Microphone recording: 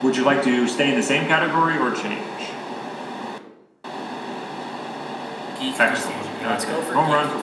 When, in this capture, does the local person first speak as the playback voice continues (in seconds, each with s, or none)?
5.6 s